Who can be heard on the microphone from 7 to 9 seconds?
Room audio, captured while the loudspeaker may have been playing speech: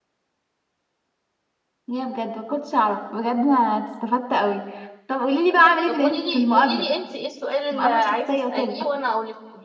both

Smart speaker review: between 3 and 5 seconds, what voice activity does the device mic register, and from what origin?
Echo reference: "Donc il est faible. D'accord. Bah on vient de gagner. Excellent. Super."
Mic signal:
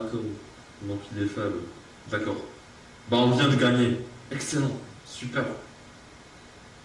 echo only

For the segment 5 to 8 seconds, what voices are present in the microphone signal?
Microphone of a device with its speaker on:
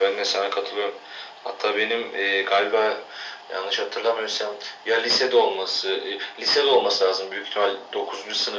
echo only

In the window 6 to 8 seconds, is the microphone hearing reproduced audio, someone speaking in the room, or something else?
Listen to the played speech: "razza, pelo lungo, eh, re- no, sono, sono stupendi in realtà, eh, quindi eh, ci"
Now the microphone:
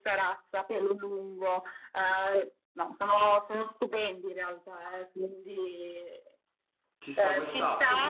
both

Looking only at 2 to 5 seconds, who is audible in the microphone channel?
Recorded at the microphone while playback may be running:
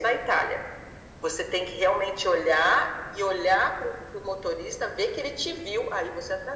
echo only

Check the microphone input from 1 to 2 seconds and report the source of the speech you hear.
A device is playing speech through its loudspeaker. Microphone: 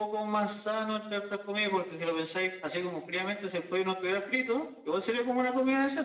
echo only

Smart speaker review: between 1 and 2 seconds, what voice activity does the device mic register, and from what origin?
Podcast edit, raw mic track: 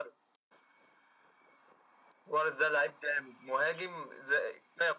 neither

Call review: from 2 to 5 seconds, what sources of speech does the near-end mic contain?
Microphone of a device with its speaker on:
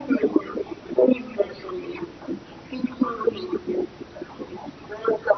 echo only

